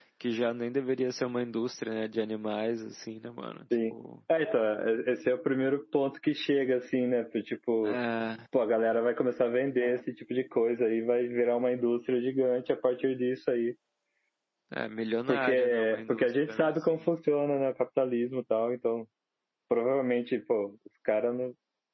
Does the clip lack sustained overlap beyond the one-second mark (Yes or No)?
No